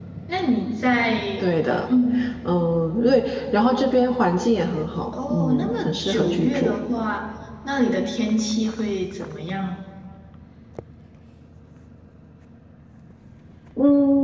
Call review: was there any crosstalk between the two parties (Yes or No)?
Yes